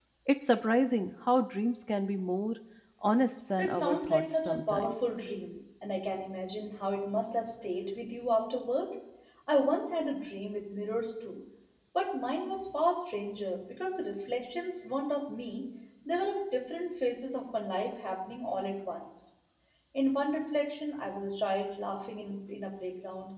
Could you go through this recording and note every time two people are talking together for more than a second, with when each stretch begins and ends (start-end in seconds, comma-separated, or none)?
3.6-5.2